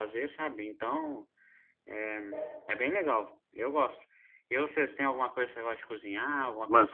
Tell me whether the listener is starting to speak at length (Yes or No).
Yes